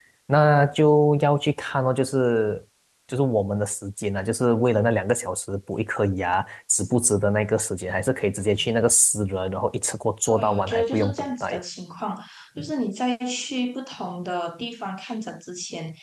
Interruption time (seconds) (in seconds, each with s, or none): 10.3 s